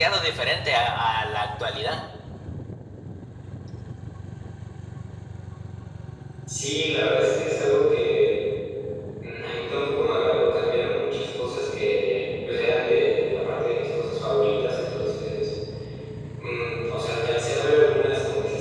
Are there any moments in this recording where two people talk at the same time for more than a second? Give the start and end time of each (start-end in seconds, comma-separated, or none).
none